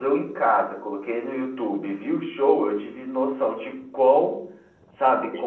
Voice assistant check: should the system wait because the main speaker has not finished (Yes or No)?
Yes